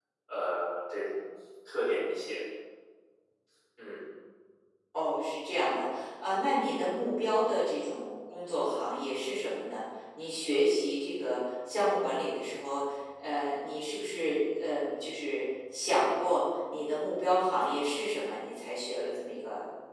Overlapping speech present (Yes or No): No